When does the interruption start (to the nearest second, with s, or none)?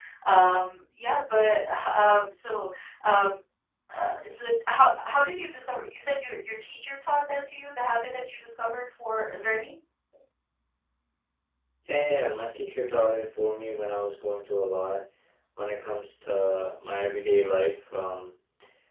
none